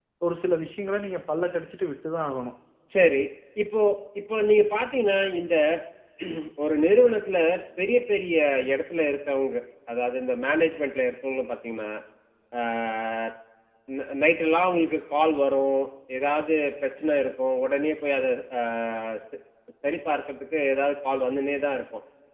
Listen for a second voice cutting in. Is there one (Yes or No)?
No